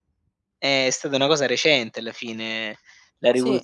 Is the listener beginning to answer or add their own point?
No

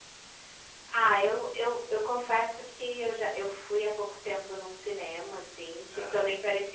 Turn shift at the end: No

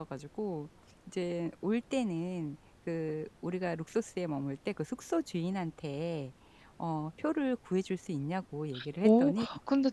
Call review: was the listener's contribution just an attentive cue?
No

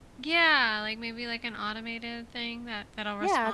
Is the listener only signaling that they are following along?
No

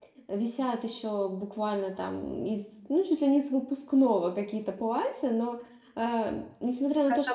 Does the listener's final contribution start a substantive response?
No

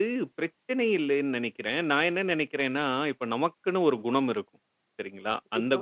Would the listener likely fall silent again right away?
Yes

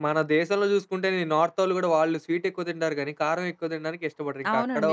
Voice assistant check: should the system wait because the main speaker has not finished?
No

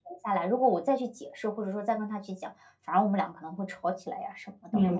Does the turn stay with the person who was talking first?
No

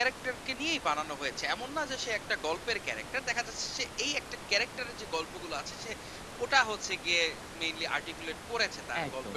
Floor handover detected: Yes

